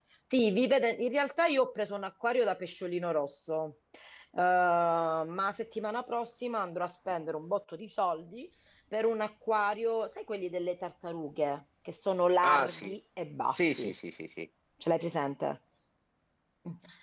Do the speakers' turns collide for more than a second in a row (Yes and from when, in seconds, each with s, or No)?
No